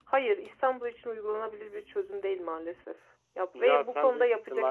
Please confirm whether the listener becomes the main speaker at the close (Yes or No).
Yes